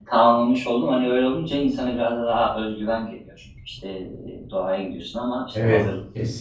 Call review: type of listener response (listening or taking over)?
taking over